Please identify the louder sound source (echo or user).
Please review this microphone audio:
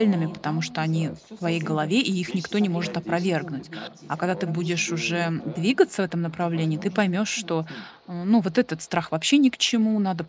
user